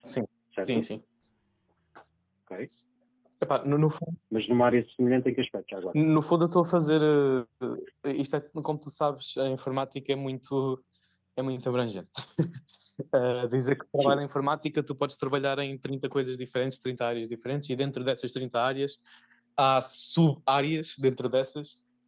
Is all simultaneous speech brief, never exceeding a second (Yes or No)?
Yes